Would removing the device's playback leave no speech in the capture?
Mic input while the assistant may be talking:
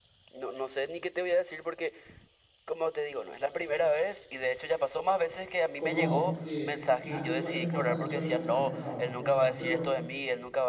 No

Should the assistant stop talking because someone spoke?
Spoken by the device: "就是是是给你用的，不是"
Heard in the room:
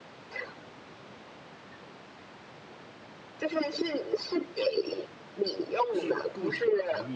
Yes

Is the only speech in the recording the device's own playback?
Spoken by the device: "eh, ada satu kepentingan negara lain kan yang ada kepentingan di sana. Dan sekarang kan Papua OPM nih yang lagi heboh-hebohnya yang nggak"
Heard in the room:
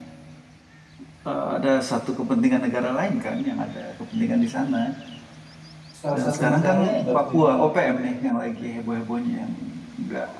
No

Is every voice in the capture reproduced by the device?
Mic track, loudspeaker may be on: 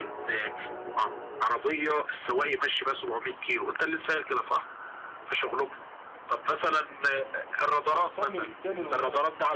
No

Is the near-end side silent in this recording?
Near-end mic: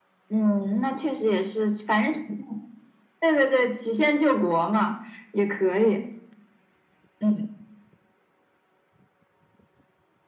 Yes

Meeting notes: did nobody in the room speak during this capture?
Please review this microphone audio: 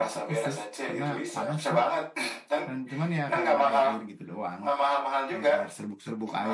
No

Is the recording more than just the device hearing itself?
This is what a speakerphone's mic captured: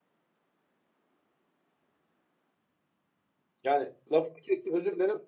Yes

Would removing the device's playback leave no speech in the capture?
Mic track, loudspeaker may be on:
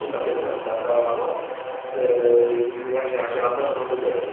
Yes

